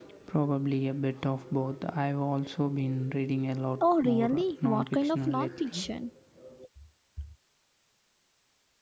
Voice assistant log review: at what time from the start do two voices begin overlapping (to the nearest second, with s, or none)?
4 s